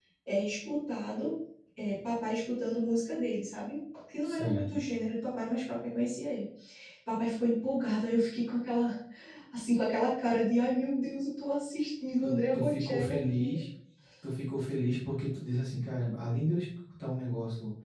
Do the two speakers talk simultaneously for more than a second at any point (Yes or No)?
Yes